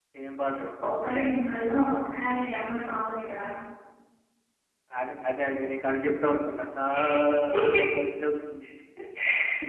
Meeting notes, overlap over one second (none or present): none